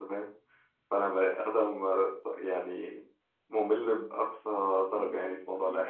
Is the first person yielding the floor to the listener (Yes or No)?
Yes